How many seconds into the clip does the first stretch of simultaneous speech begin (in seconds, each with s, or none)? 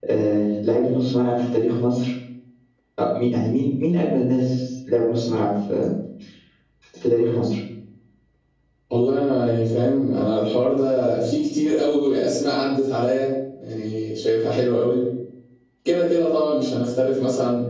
none